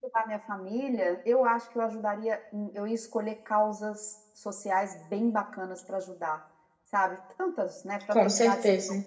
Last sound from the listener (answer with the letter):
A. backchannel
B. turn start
A